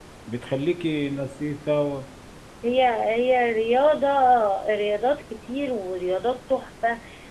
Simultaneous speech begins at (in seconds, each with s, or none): none